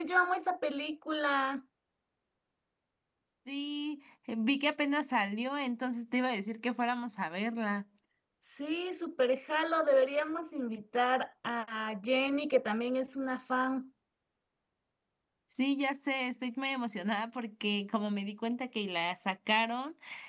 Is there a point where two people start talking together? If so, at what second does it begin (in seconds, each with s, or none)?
none